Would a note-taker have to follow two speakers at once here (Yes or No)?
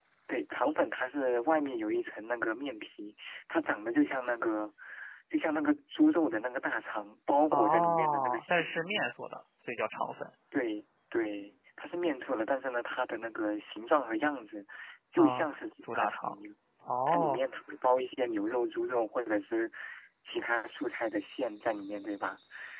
Yes